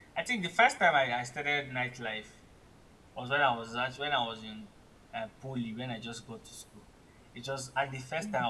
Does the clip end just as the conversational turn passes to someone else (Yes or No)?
No